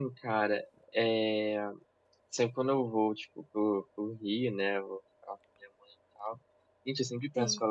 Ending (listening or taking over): listening